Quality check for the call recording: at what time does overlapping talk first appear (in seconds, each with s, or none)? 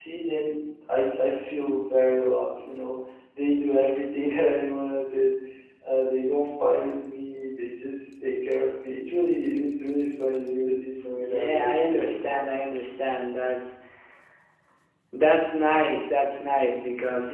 11.1 s